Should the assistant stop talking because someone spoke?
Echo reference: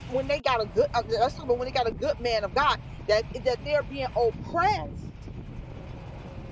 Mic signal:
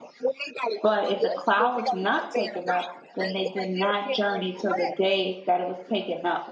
Yes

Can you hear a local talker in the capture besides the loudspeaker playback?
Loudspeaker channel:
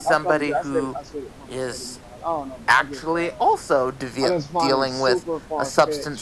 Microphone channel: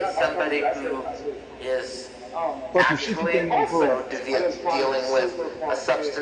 Yes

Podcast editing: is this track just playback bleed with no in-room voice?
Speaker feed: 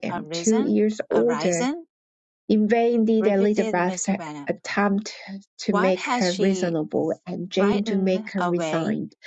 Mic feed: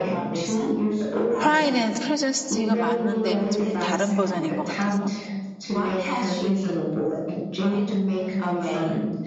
No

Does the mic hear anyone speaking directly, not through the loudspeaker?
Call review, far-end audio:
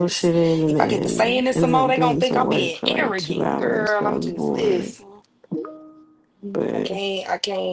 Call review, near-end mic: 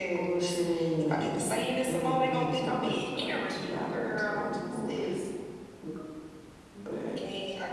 No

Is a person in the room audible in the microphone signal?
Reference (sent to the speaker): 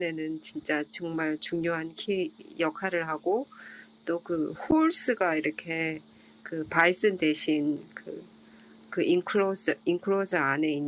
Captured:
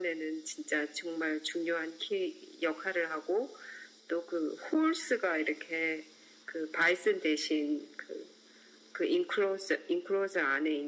No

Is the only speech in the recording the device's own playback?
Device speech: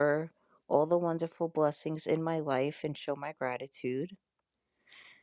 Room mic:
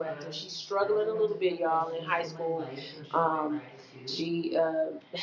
No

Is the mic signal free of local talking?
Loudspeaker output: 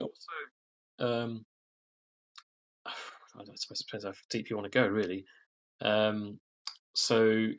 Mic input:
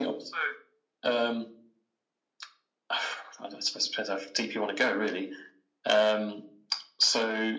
Yes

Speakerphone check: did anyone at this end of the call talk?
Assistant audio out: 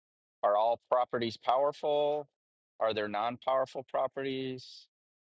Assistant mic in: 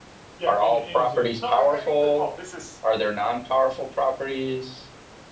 Yes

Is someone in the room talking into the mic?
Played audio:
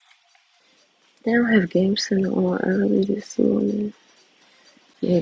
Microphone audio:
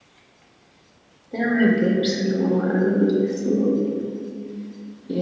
No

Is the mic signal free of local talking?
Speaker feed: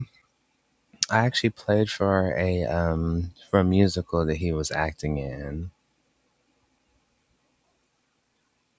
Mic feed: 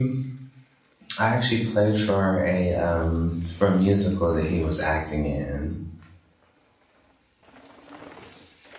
Yes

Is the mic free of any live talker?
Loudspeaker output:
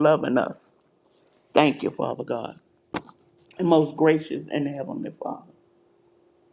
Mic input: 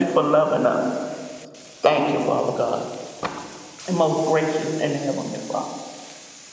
Yes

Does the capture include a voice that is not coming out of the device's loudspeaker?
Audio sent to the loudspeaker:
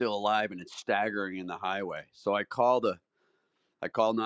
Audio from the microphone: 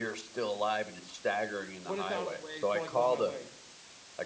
Yes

